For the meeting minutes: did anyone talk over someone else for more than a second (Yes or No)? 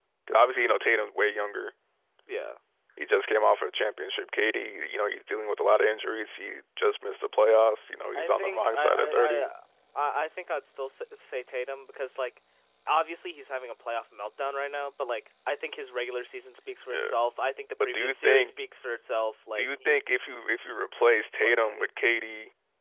Yes